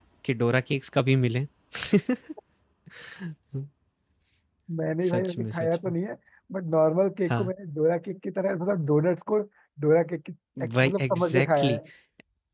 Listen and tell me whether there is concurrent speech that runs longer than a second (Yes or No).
Yes